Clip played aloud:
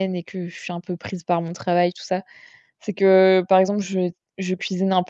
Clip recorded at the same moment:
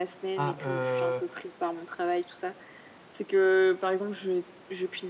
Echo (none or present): present